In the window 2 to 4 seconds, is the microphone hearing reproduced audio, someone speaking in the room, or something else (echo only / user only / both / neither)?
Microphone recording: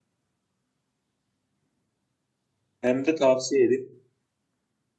user only